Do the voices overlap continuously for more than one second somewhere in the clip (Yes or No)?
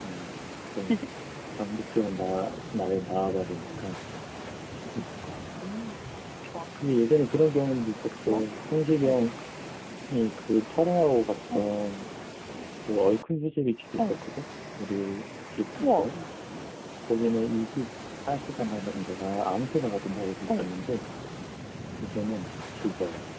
No